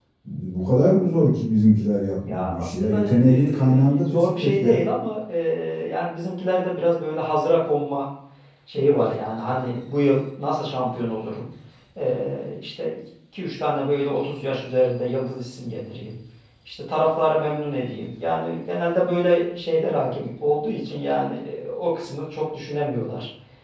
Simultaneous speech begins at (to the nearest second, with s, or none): 2 s